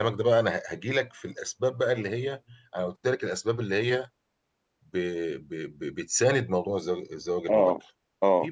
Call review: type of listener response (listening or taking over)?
listening